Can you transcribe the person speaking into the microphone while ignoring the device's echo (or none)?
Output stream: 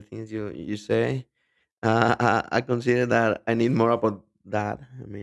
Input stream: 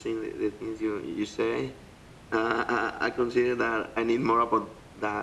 none